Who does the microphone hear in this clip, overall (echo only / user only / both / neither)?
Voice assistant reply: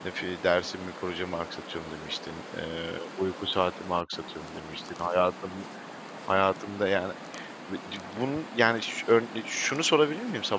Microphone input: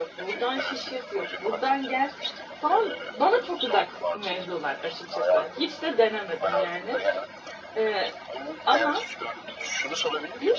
both